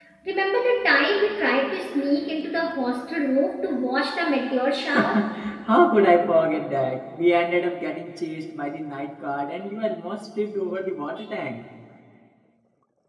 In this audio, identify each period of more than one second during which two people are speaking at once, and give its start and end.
none

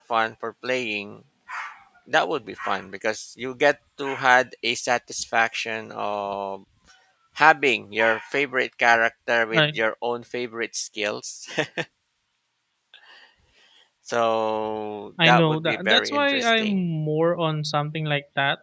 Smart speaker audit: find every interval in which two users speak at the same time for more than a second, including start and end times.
15.2-16.8

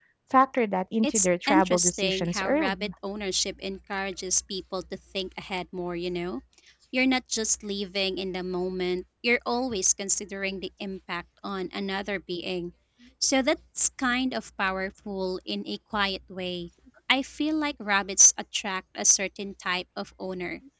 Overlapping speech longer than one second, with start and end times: 1.0-2.9

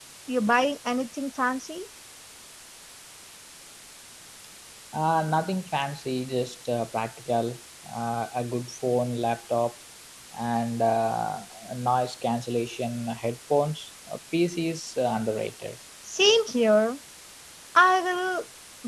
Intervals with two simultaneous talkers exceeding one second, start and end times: none

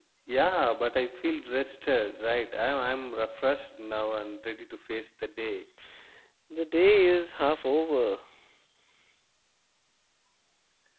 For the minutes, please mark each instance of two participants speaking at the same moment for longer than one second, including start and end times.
none

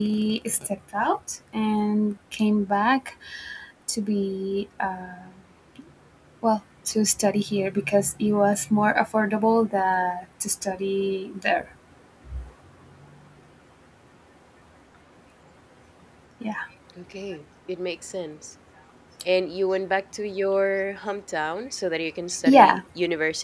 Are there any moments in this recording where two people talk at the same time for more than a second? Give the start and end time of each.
none

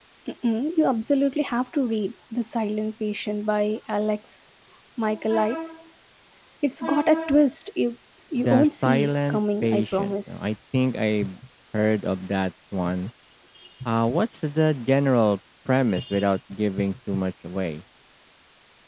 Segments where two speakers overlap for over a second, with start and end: 8.4-10.4

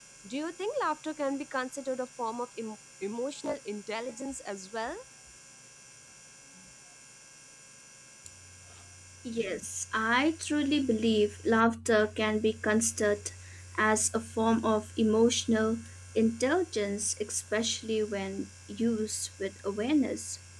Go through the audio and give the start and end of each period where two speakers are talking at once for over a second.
none

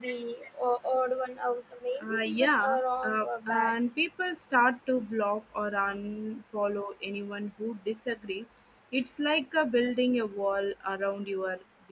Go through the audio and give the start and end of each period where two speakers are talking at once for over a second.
2.0-3.8

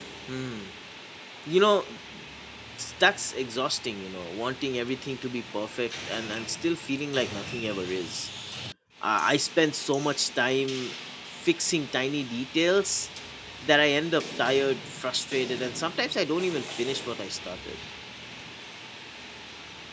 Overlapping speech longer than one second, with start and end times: none

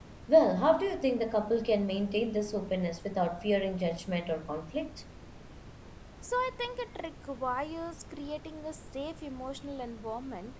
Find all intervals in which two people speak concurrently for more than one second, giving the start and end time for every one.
none

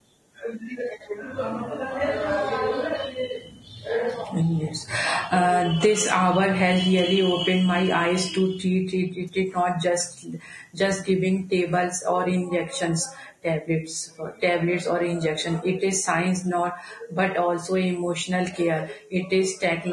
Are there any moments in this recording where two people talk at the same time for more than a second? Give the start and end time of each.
none

